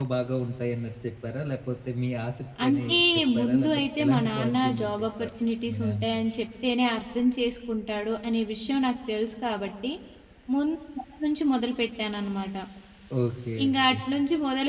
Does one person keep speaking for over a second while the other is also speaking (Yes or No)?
Yes